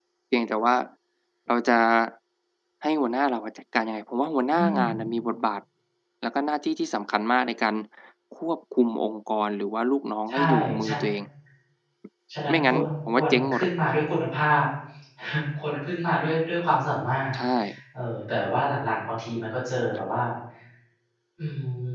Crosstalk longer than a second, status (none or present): present